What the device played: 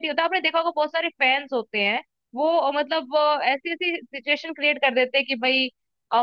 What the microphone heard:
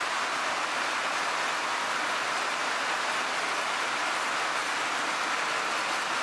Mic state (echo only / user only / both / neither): neither